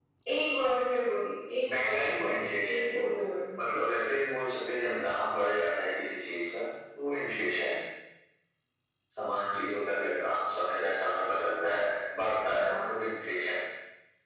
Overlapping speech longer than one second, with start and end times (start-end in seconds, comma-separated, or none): 1.7-3.6